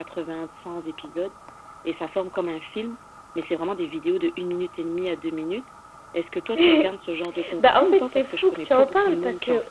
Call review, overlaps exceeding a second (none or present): present